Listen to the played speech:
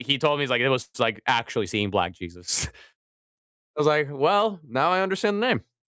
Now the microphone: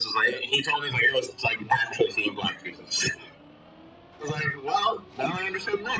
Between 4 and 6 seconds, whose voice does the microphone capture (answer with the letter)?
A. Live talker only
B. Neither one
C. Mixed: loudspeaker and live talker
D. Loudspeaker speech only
D